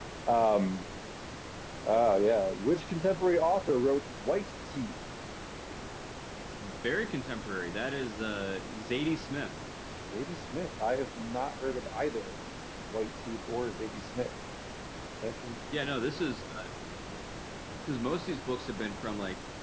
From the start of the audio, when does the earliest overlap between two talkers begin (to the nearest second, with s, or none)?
none